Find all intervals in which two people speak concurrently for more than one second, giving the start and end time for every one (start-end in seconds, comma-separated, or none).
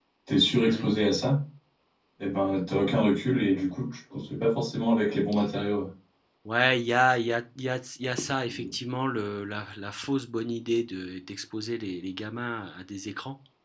none